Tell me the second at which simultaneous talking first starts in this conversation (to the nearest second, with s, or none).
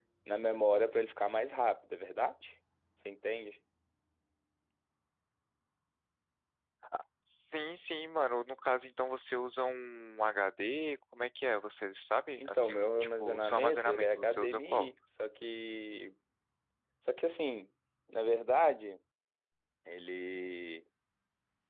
12 s